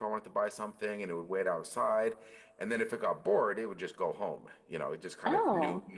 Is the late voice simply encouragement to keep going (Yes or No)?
Yes